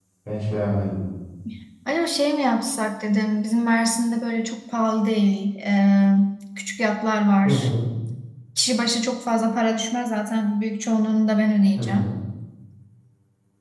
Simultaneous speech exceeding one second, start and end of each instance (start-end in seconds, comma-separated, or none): none